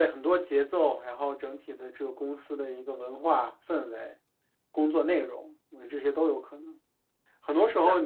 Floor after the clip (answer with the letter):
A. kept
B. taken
A